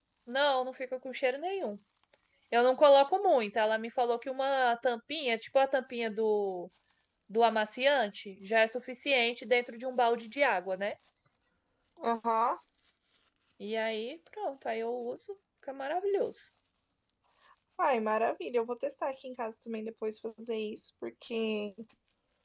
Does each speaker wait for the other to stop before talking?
Yes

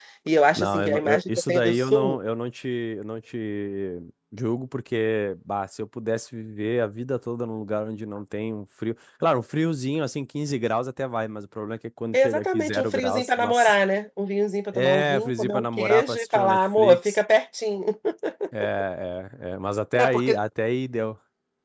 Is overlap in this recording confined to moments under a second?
No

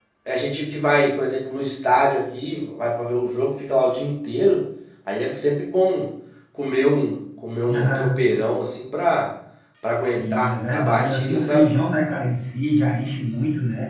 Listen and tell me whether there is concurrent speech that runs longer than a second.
Yes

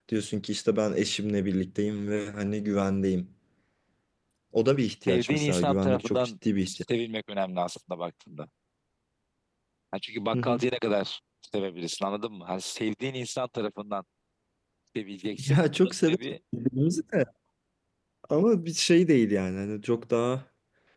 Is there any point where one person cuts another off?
Yes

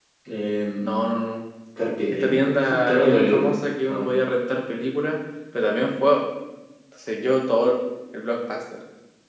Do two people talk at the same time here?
Yes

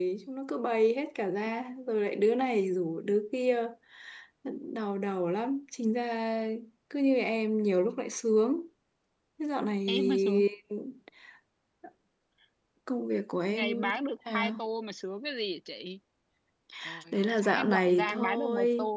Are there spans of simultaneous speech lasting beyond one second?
Yes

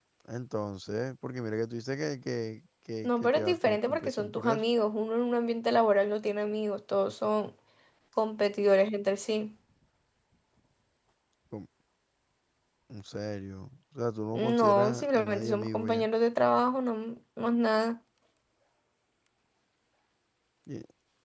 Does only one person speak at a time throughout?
No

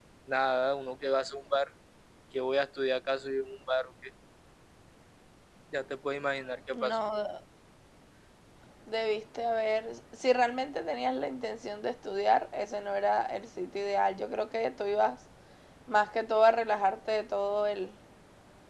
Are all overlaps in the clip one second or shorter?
Yes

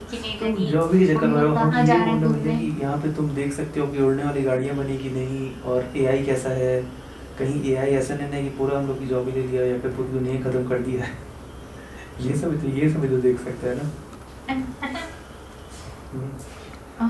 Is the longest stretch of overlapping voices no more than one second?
No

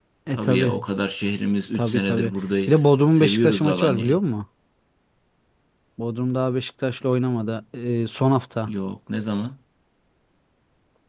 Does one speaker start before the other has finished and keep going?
Yes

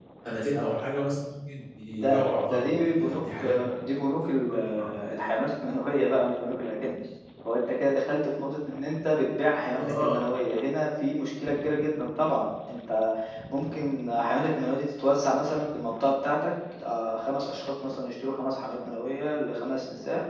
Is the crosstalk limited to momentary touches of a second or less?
No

